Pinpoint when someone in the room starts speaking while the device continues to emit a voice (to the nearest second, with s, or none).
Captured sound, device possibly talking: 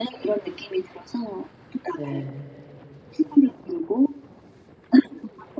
2 s